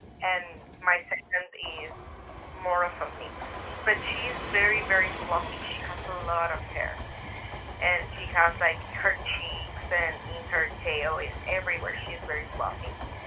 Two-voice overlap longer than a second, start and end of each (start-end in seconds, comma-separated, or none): none